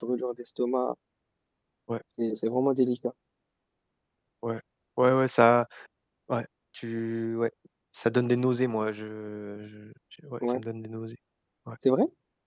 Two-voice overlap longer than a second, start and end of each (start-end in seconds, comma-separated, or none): none